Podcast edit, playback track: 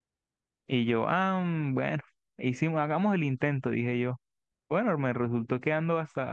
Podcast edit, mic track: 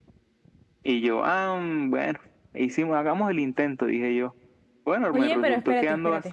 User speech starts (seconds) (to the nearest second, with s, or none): 5 s